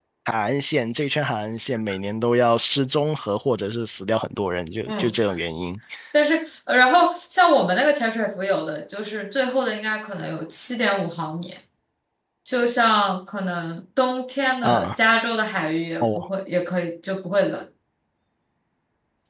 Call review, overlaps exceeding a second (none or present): none